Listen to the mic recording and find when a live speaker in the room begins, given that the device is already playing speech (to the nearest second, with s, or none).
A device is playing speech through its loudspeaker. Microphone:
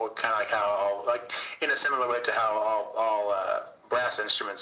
none